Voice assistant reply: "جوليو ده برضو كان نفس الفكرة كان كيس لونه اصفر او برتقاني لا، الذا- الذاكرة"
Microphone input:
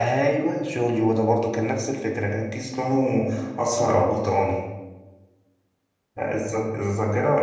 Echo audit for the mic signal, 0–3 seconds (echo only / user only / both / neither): echo only